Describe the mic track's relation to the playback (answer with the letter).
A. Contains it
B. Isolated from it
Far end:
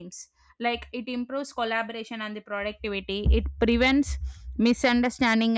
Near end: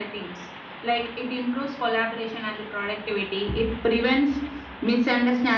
A